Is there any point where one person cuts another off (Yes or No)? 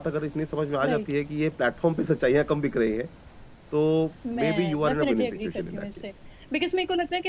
Yes